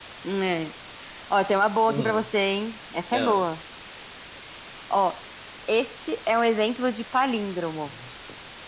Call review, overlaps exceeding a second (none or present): none